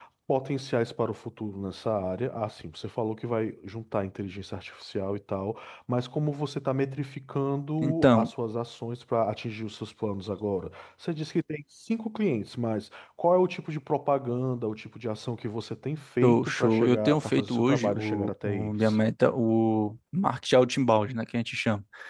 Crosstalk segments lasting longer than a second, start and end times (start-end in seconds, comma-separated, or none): 16.2-19.0